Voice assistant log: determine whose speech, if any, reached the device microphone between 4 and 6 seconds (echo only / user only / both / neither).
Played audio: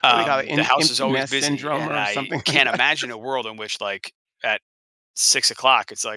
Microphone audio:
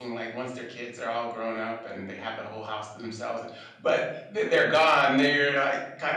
user only